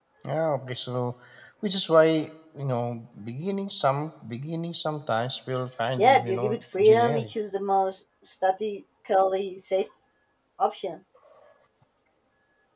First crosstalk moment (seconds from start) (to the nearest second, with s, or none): 6 s